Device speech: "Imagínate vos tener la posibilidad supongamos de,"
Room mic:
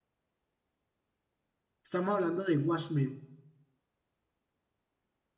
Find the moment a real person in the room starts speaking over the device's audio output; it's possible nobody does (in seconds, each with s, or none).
1.8 s